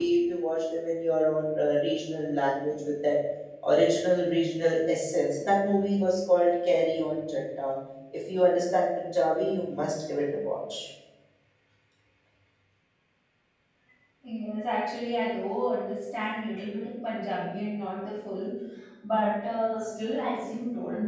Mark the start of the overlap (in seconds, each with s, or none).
none